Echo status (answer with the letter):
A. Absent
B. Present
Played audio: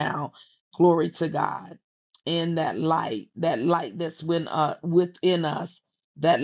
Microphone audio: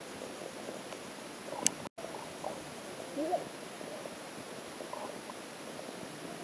A